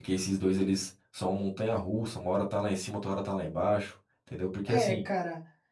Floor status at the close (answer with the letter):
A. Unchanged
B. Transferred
B